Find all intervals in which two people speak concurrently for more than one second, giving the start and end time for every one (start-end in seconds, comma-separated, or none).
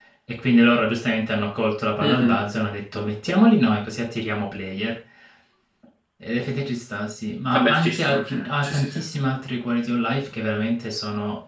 7.5-8.9